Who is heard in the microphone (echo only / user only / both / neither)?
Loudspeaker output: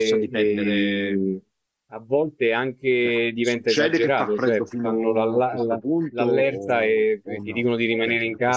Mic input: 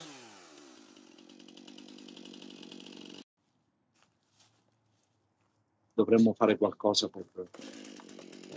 user only